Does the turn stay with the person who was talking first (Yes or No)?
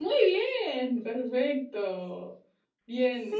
Yes